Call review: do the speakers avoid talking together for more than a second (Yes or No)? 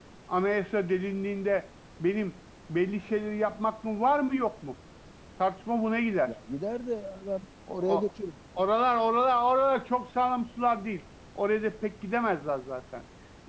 Yes